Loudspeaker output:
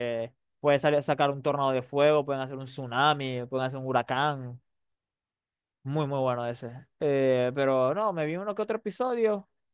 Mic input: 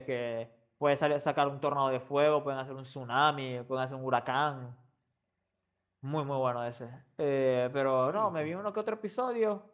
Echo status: present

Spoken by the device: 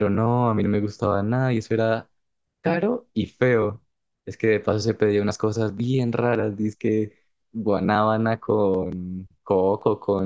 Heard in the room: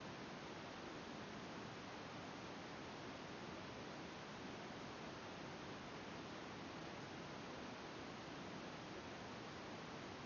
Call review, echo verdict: none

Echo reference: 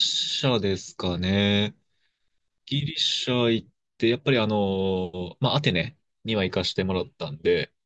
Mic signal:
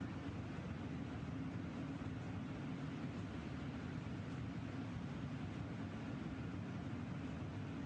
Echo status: none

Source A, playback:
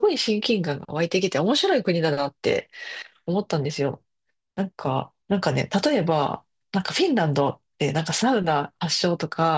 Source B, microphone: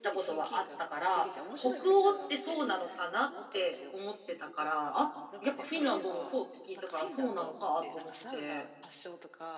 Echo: present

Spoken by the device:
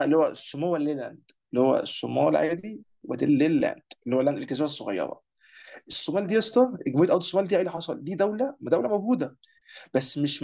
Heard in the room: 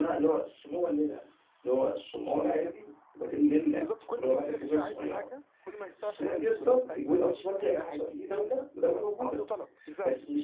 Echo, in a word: present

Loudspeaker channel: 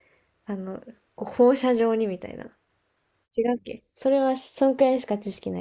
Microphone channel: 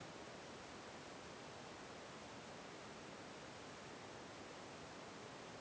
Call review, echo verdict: none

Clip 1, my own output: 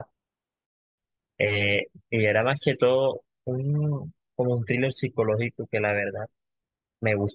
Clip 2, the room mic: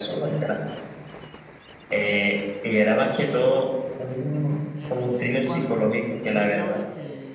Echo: present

